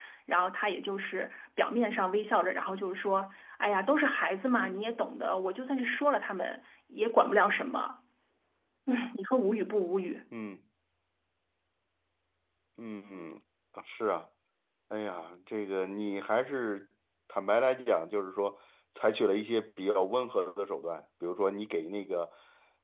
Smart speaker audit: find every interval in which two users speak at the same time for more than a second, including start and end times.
none

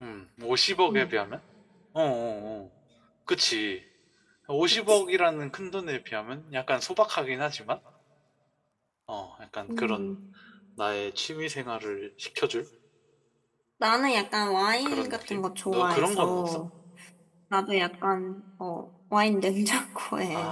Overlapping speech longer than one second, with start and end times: 14.8-16.6

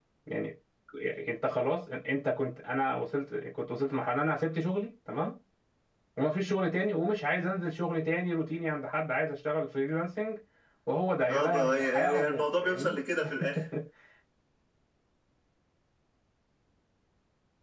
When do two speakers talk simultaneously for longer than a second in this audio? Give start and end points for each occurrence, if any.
11.3-12.9

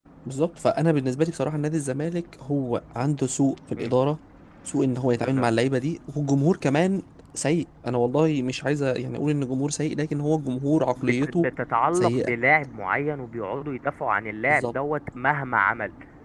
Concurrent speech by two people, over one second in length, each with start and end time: none

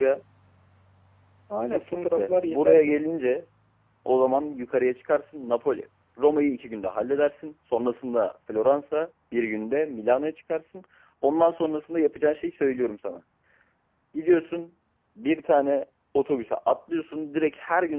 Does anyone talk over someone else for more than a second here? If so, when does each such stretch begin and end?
1.7-3.0

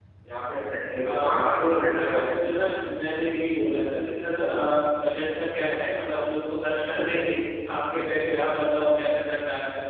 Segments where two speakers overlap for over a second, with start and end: 1.0-2.5

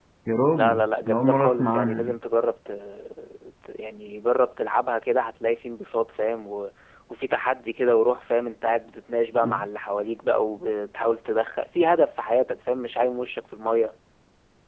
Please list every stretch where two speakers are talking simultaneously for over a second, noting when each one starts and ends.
0.5-2.2

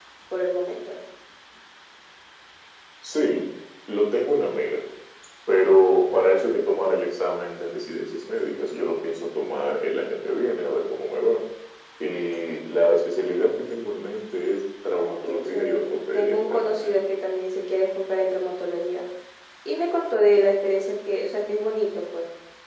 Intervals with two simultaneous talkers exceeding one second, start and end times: 15.0-17.0

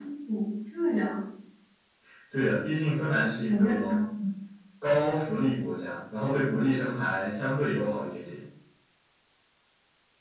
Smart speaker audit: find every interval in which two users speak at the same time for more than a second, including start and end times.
none

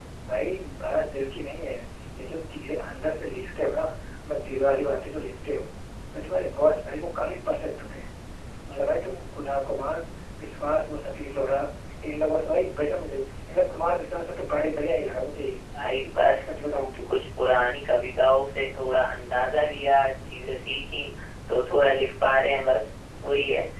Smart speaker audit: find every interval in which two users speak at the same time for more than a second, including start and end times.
none

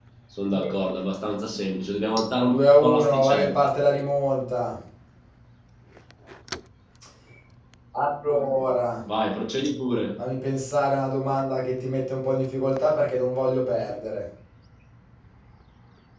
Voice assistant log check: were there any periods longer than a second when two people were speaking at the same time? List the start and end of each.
2.5-3.7

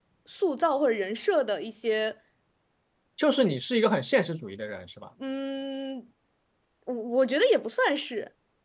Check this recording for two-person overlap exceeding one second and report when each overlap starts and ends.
none

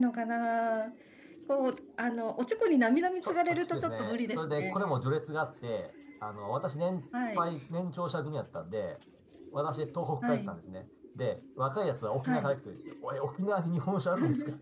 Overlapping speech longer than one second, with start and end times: 3.2-5.0

